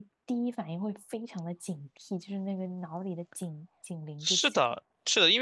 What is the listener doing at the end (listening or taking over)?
taking over